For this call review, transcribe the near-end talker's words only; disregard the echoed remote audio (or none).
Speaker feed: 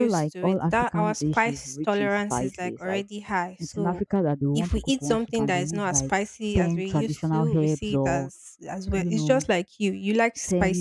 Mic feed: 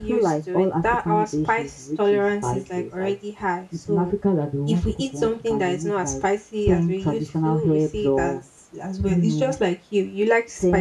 none